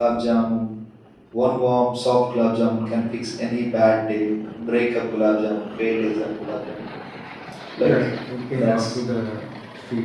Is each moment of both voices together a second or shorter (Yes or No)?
Yes